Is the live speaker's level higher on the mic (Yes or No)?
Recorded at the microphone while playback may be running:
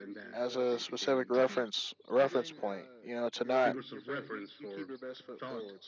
Yes